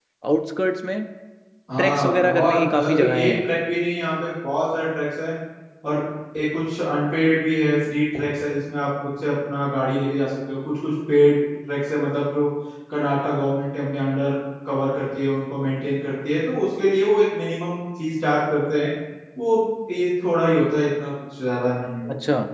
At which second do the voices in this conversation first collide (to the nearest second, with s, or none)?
2 s